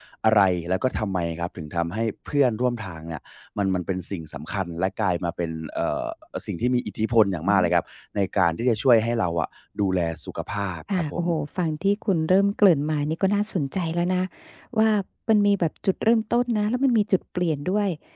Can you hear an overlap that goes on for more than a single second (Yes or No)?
No